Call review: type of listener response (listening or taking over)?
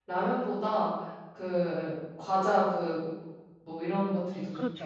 taking over